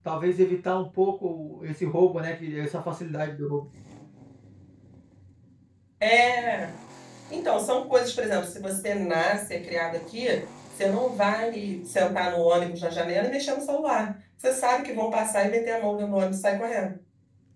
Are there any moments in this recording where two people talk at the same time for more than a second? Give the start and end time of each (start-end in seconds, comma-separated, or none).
none